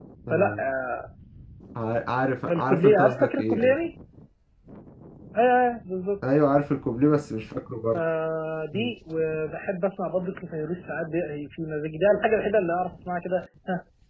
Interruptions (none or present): present